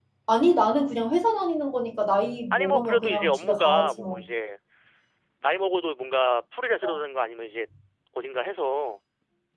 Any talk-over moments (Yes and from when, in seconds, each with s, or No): Yes, from 2.5 s